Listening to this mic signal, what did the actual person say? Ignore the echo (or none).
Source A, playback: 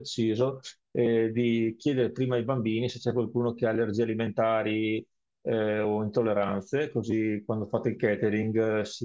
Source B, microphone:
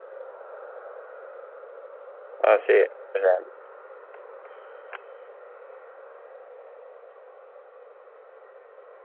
Ah sì, per esempio,